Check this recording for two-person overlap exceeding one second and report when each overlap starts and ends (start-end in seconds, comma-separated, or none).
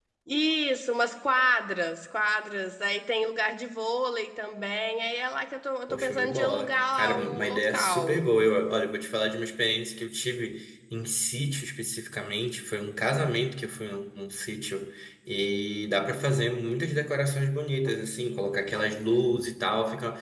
5.9-8.2